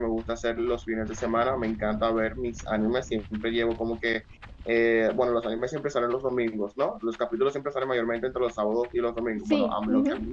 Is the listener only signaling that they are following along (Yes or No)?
Yes